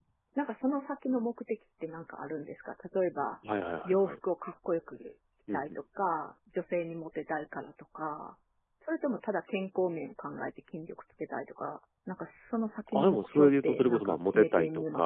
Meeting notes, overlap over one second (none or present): present